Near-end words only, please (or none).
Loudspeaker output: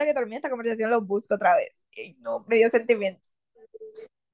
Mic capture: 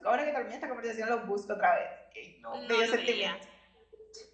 no lo veía.